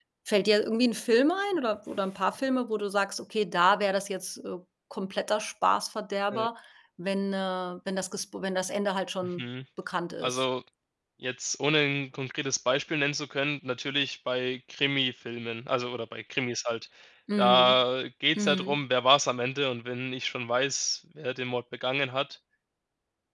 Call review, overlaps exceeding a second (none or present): none